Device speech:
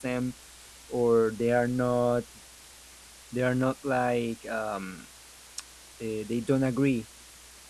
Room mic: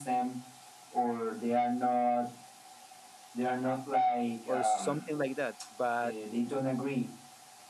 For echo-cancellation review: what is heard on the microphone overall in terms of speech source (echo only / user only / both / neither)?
both